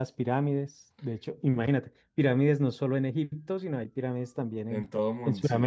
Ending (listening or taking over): taking over